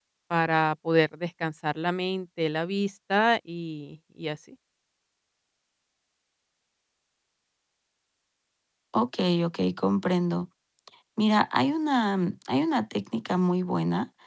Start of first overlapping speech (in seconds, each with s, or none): none